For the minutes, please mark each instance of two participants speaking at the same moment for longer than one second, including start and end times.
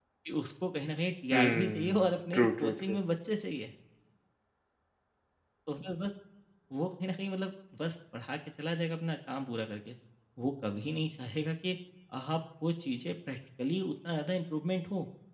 1.3-3.0

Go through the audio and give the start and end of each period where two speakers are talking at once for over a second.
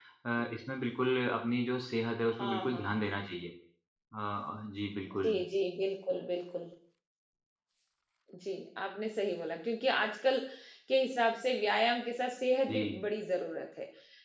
none

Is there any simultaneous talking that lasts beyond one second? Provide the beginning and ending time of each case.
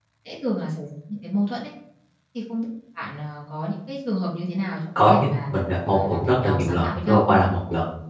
5.9-7.4

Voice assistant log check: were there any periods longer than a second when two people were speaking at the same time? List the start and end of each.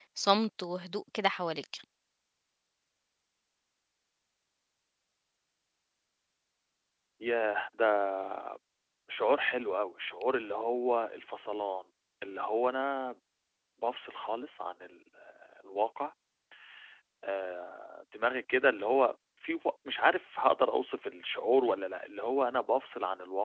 none

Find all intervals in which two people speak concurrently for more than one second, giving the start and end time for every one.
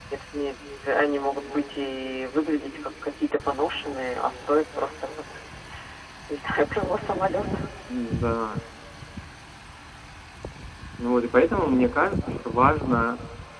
none

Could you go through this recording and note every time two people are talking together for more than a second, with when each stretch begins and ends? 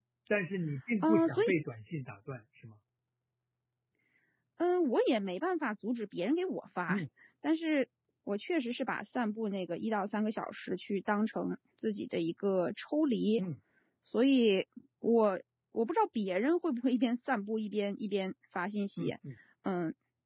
none

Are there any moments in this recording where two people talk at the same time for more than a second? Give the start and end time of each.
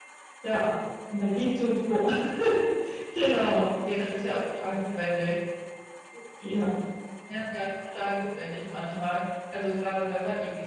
none

